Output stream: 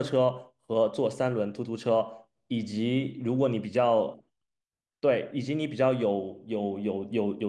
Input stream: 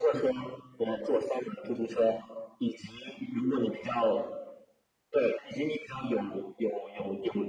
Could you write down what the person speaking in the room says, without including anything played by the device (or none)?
none